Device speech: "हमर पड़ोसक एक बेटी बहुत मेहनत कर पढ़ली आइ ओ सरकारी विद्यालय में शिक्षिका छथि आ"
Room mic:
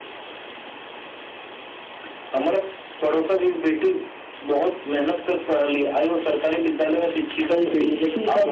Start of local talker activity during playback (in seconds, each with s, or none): 7.5 s